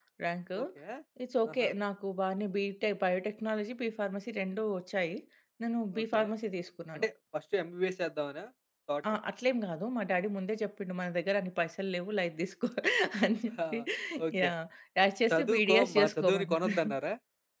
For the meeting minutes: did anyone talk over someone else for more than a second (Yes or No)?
Yes